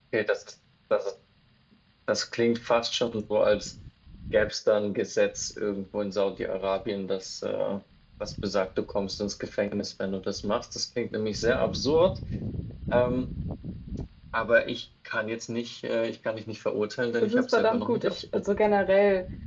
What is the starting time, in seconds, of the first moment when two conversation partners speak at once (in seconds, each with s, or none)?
17.2 s